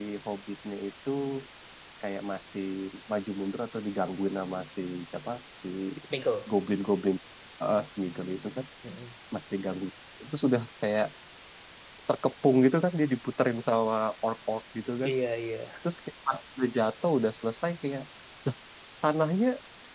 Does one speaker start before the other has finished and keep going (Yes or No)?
No